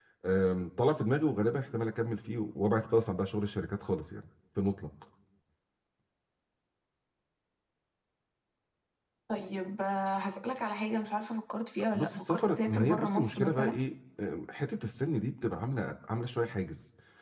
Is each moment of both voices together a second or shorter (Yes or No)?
No